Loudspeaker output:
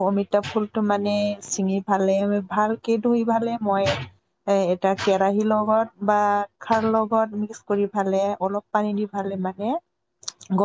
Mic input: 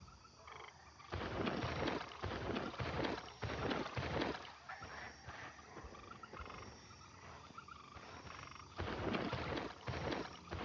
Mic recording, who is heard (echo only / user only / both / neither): neither